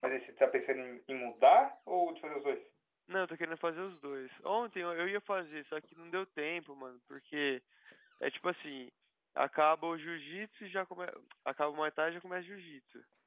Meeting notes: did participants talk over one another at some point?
No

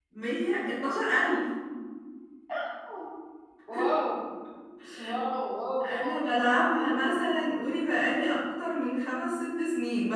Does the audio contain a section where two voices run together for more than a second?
Yes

